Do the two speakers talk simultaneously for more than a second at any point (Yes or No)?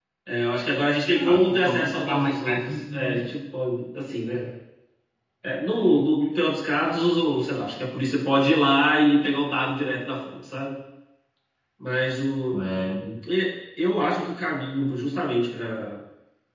Yes